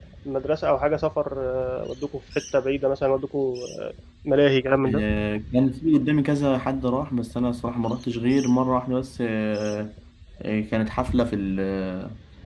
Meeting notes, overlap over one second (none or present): none